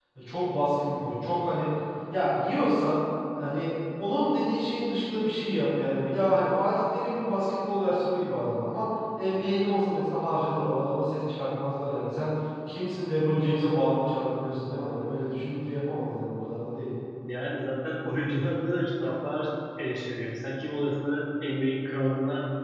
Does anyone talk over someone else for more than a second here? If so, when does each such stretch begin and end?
none

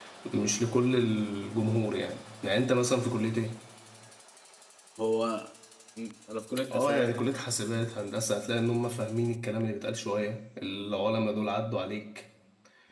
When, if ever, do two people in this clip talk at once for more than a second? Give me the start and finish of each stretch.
none

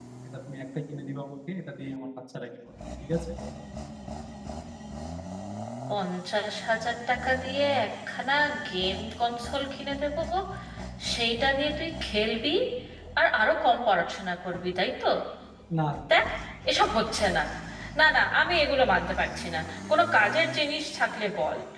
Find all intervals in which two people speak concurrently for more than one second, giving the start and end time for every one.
none

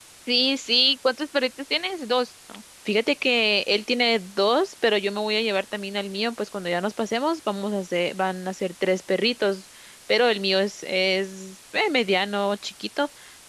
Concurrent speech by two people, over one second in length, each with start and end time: none

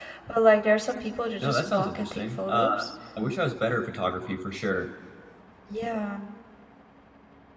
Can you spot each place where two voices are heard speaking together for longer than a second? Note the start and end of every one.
1.4-2.6

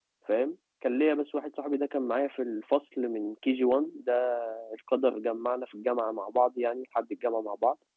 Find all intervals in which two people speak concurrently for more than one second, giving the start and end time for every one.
none

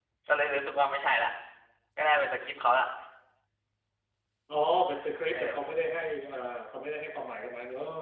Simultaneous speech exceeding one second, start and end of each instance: none

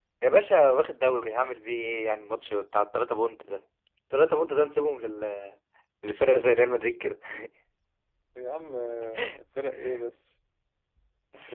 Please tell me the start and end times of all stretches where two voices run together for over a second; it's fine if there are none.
none

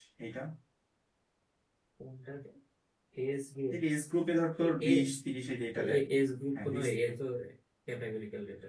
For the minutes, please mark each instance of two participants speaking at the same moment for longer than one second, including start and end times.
none

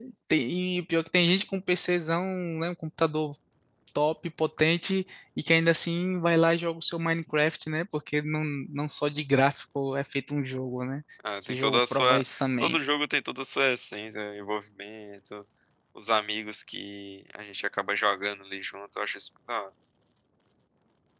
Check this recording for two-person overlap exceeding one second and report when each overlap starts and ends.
11.5-12.8

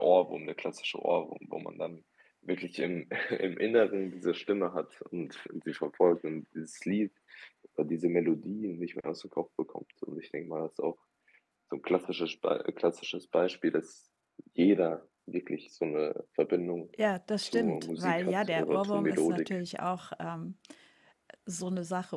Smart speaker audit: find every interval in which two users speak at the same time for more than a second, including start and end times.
17.4-19.6

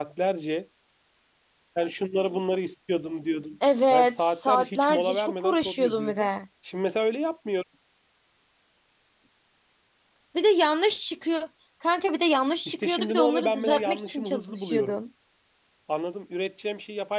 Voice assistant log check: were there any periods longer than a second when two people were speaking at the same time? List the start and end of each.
3.9-6.3, 12.7-15.0

